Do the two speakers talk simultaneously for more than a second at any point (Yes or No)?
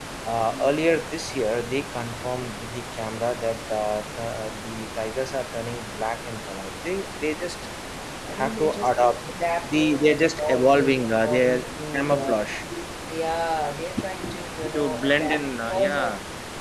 Yes